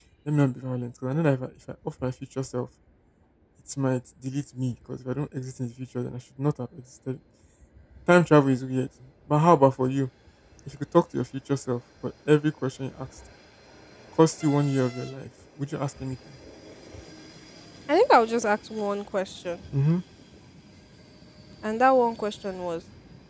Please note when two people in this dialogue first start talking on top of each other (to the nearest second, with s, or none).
none